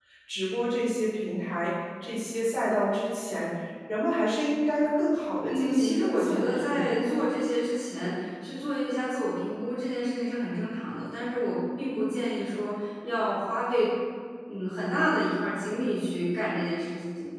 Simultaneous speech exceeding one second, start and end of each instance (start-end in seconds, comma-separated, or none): 5.5-7.2